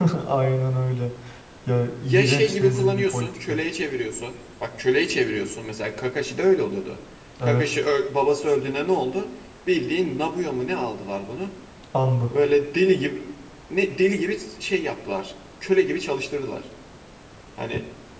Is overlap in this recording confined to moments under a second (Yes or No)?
No